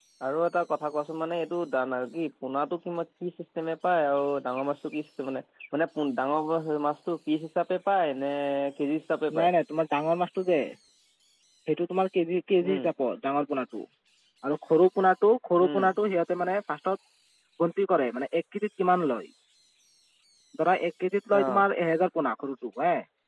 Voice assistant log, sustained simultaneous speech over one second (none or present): none